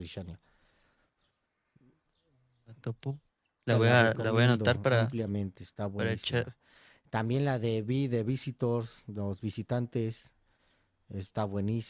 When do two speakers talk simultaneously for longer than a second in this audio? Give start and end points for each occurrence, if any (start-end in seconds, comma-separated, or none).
3.7-5.1